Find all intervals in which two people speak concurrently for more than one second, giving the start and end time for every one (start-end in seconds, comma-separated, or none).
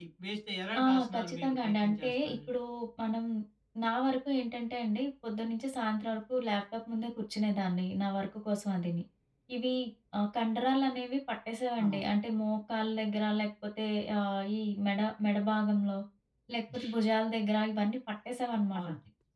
0.8-2.4